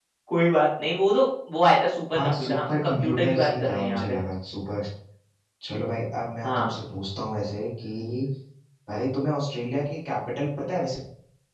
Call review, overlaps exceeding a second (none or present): present